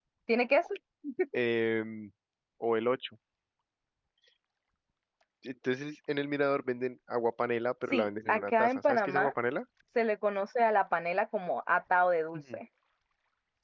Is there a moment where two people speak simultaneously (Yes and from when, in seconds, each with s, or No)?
Yes, from 7.9 s